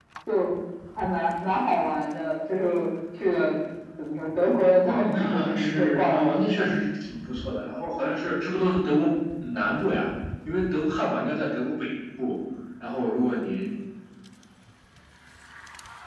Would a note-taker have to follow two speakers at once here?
Yes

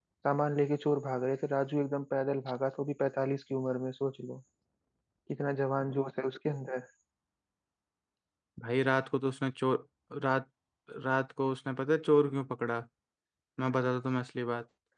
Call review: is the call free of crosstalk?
Yes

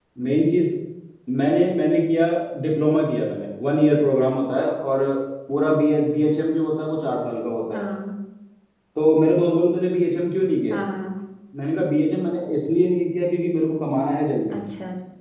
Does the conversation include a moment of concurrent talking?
No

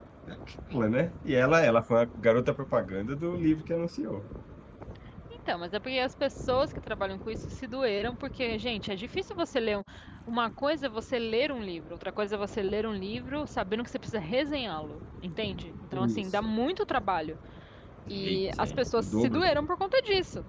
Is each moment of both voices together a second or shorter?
No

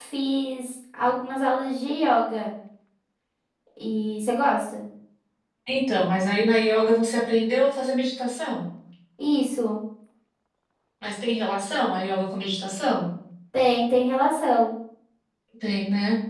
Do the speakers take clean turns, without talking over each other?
Yes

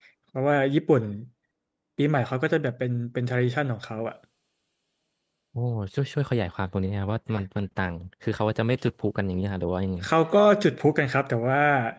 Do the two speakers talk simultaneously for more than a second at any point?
No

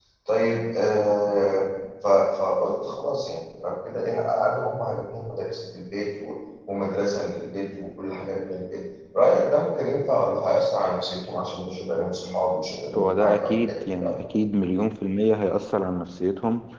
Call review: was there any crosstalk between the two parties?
Yes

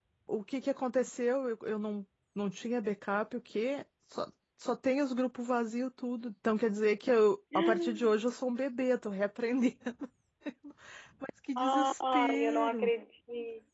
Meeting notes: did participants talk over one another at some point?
Yes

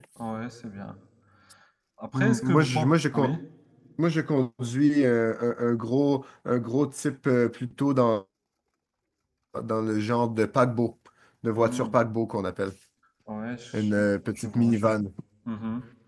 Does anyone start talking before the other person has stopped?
Yes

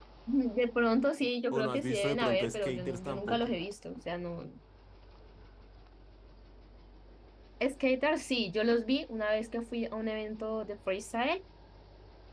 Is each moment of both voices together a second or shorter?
No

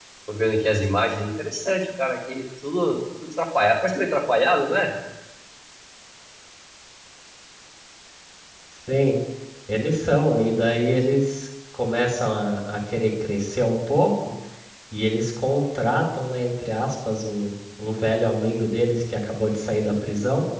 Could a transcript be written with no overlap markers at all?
Yes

